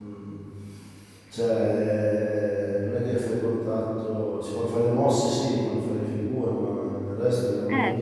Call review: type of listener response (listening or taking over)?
listening